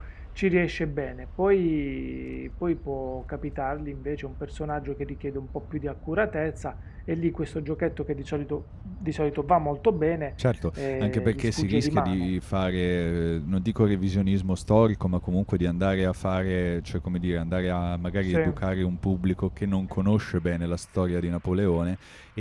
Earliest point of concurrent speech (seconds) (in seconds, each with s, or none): 10.8 s